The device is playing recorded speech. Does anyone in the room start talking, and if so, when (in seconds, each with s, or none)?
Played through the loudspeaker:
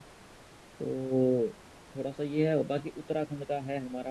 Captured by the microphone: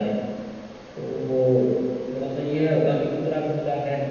none